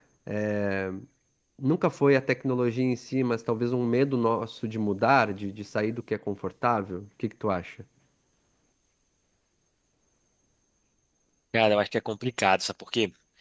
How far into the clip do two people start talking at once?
none

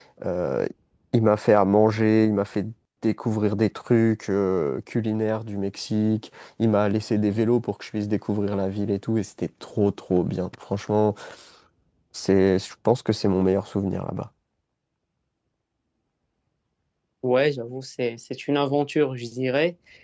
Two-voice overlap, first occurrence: none

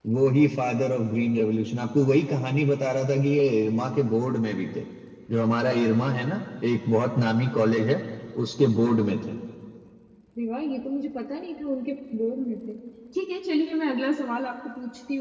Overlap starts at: none

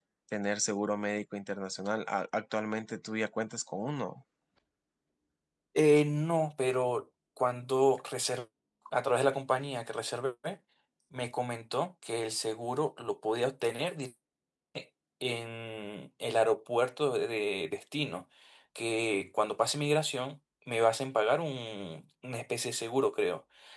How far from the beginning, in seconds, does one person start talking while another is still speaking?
none

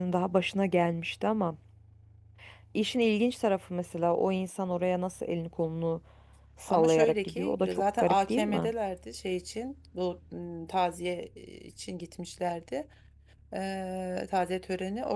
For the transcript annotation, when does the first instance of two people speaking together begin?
6.7 s

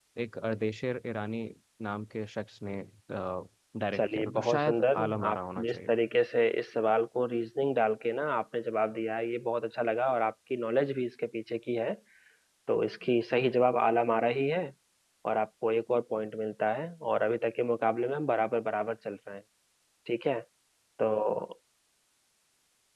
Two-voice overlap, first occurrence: 4.0 s

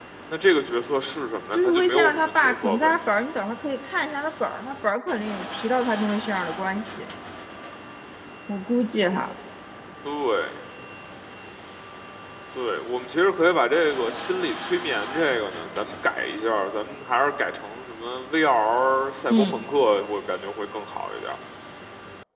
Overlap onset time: 1.5 s

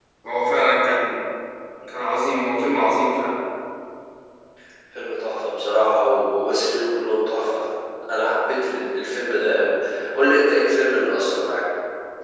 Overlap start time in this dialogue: none

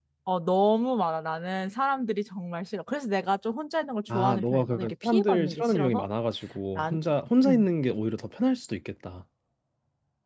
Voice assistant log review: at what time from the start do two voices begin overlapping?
4.1 s

